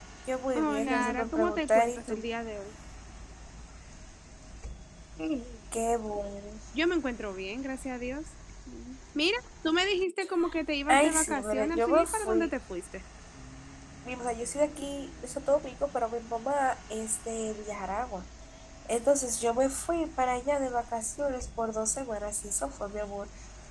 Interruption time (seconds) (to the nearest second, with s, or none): 1 s